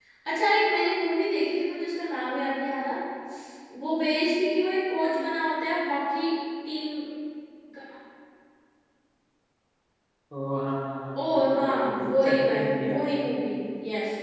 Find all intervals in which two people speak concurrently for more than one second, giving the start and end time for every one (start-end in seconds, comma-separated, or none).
11.2-13.0